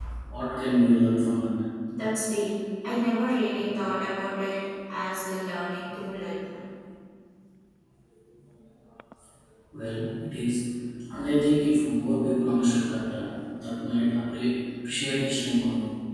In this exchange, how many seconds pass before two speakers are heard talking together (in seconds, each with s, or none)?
none